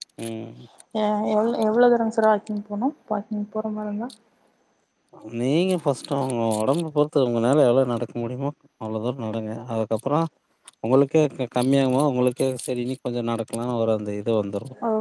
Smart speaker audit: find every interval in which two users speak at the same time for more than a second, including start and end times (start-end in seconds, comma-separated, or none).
none